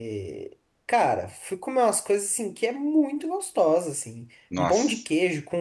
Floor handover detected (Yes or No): No